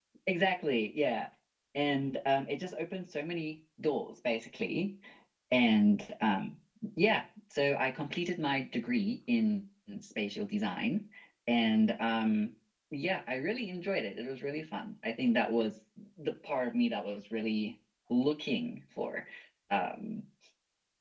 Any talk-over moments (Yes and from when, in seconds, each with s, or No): No